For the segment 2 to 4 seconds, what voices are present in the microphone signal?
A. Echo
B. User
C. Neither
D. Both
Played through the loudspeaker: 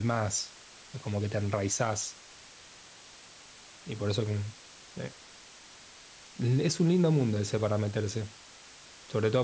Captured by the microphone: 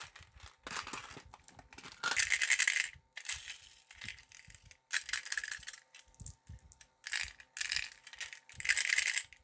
C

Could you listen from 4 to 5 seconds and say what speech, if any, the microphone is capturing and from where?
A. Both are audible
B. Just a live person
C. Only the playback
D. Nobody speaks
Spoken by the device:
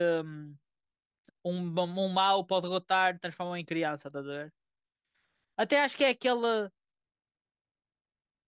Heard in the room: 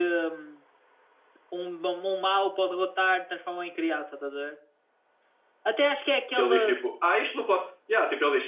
C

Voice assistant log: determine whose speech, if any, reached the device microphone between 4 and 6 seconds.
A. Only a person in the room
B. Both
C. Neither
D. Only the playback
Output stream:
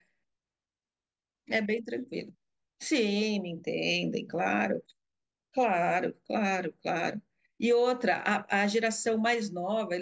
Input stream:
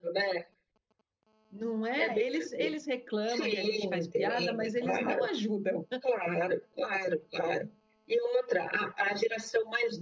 B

